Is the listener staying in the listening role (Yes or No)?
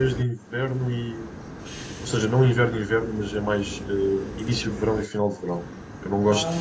Yes